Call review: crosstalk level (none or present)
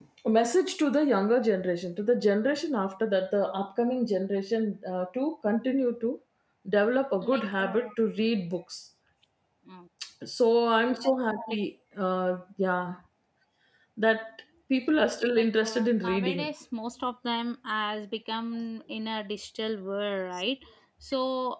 present